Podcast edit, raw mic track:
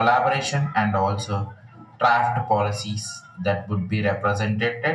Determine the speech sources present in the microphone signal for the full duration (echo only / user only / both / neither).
echo only